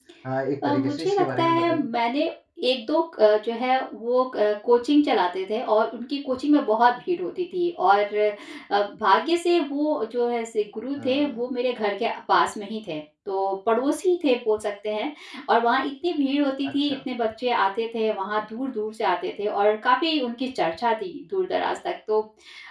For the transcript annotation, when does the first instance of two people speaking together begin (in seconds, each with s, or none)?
0.6 s